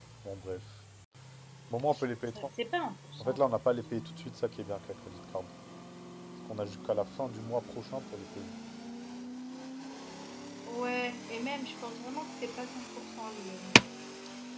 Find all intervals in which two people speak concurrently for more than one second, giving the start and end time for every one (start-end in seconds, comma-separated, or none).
none